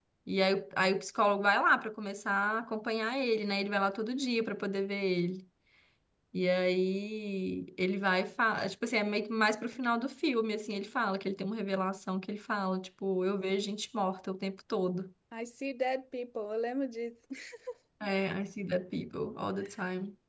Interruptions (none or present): none